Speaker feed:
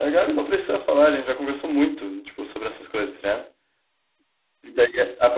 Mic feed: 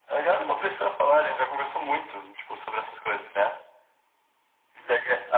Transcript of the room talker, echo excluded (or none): none